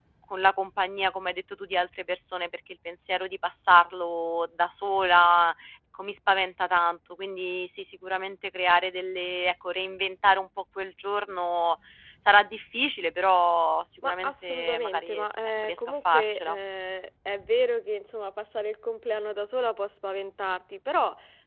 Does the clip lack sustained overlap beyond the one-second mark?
No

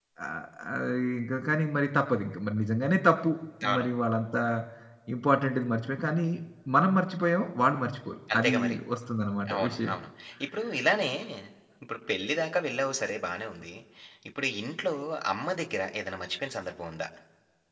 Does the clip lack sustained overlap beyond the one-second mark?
Yes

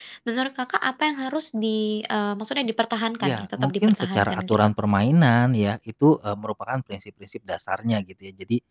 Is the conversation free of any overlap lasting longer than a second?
No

